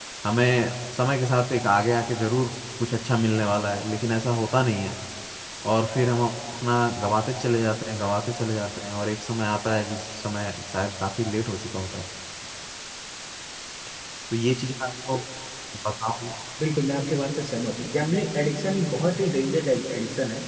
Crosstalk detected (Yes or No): No